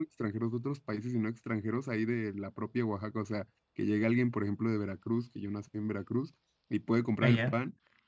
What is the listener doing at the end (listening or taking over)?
listening